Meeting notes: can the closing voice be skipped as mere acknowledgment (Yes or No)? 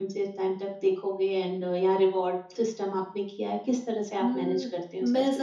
No